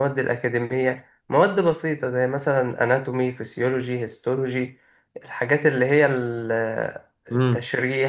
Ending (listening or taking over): listening